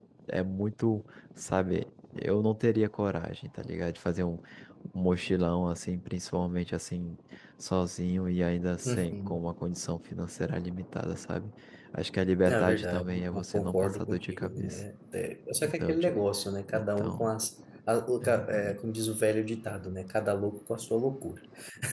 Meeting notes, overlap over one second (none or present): present